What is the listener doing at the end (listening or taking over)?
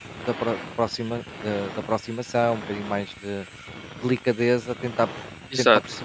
listening